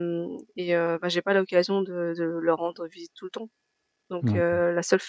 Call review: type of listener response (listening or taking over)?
listening